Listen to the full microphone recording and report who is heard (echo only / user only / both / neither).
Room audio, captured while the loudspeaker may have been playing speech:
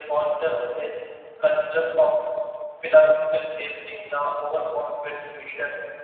echo only